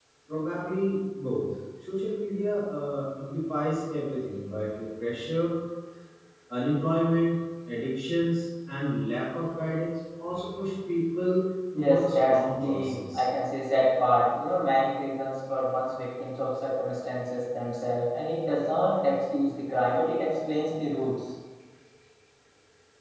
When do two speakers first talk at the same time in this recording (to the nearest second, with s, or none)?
12 s